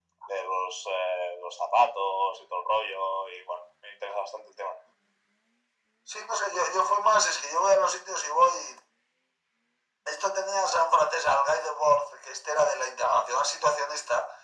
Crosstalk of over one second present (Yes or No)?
No